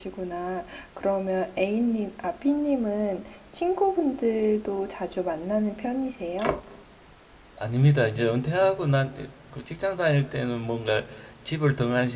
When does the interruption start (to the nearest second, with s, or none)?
none